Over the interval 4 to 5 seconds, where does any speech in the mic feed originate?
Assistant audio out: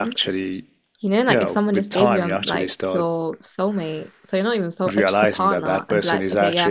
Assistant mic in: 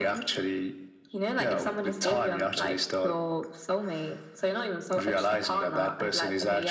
echo only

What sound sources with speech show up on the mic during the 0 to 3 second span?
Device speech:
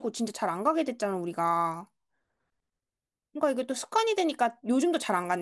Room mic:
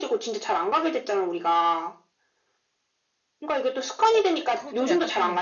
echo only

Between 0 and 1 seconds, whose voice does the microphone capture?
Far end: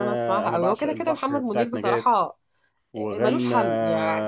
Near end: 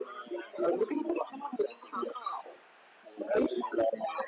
echo only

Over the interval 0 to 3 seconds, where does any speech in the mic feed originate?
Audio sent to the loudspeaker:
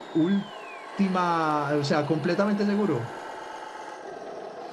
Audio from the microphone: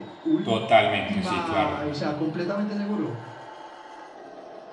both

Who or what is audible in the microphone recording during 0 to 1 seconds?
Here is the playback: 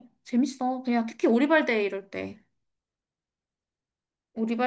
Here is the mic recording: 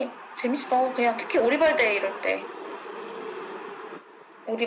echo only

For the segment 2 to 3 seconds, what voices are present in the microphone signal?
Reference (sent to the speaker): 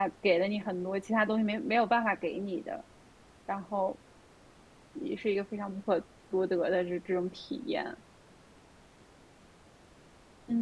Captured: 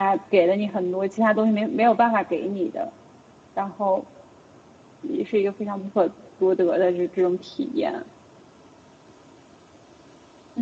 echo only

